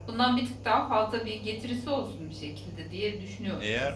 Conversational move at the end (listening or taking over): taking over